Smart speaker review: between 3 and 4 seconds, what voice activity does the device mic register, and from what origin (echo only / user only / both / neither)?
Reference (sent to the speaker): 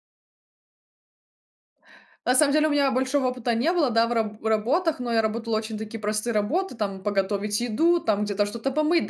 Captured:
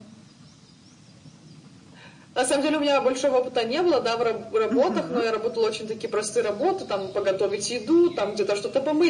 echo only